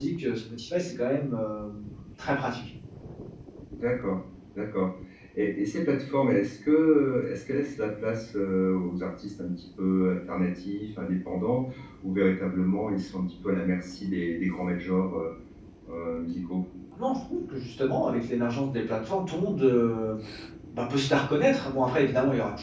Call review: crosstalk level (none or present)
none